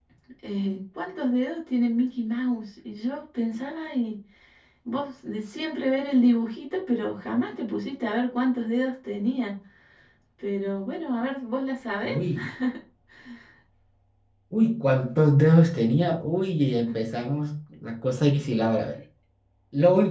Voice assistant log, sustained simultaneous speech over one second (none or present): none